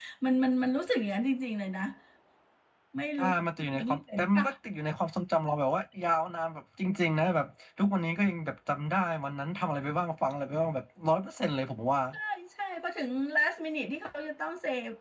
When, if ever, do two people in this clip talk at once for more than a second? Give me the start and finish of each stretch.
3.2-4.5

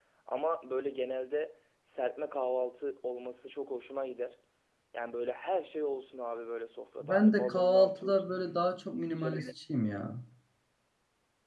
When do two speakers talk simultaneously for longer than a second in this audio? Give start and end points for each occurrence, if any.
7.0-8.2

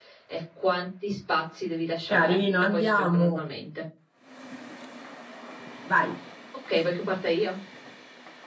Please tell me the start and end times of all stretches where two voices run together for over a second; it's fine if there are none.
2.1-3.4

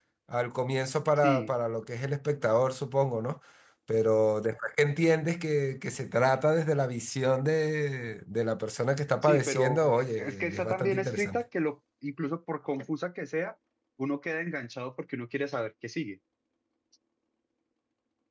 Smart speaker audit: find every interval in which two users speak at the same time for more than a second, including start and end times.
9.2-11.4

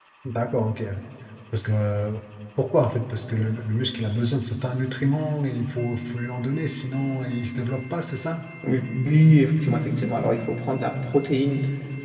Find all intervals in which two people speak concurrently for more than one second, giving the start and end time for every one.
none

